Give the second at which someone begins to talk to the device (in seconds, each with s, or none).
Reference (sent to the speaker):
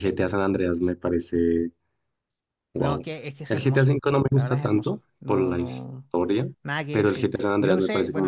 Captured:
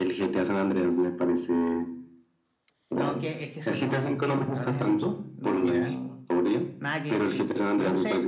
5.6 s